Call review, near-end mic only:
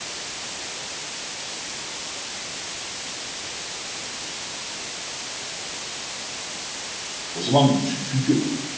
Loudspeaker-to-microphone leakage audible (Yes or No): No